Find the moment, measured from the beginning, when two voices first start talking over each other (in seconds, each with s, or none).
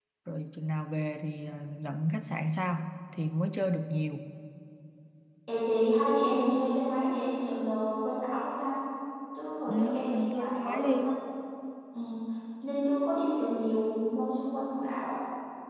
9.7 s